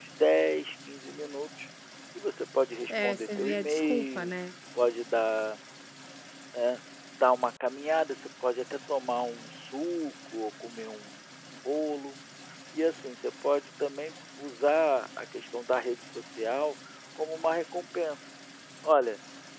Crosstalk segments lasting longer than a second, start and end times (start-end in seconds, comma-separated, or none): 2.9-4.3